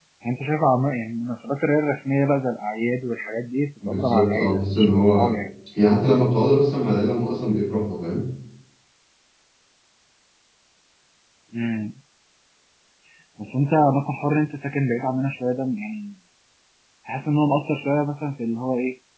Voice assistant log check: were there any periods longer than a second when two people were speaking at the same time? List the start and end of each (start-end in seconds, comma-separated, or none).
3.9-5.3